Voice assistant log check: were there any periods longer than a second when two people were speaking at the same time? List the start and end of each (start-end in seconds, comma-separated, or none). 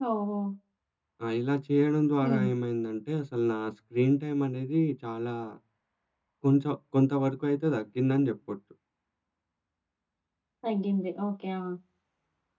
none